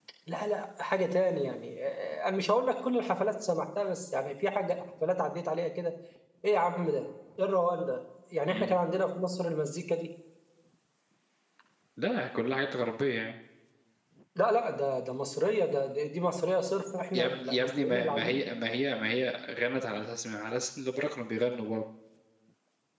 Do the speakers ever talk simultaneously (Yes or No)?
Yes